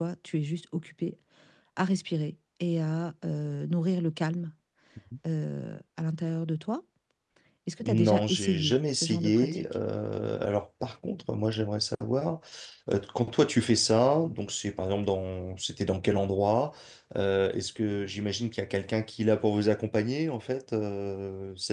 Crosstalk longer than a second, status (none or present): present